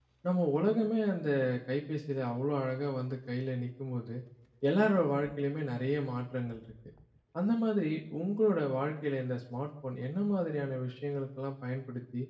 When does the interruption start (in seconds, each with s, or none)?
none